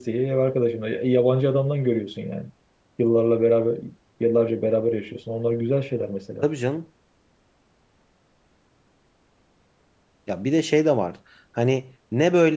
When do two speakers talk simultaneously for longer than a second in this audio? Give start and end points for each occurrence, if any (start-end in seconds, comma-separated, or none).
none